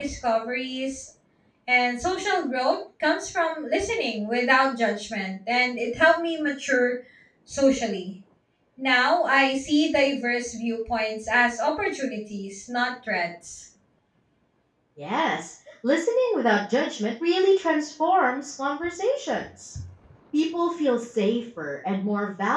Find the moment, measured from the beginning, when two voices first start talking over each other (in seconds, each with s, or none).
none